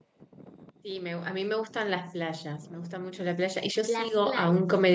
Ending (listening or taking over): listening